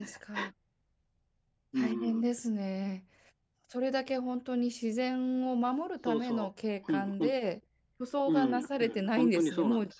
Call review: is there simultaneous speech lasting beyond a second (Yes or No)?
Yes